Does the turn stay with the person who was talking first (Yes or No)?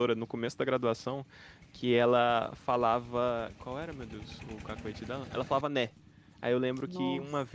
Yes